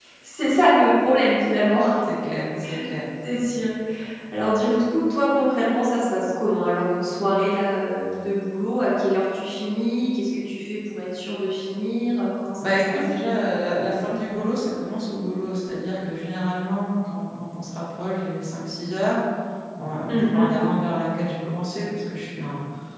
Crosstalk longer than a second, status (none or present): none